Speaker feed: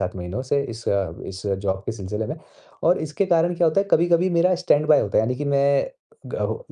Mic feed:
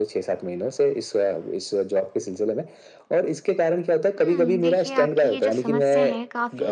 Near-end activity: present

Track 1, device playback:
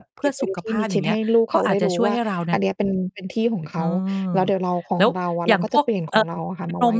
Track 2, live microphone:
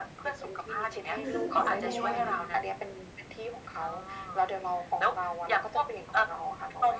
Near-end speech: present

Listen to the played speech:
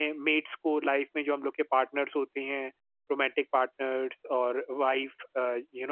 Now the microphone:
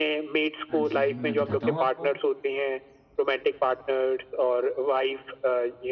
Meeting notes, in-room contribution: present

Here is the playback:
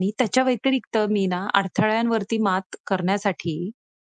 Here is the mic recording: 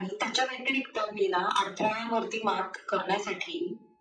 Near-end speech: none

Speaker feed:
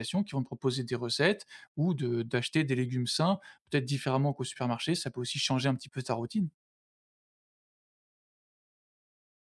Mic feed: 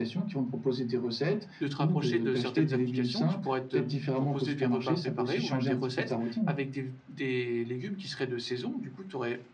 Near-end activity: present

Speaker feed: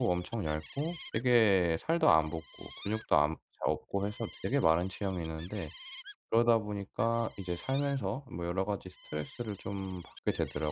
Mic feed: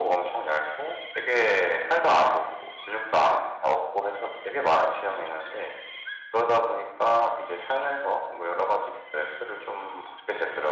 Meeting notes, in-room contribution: none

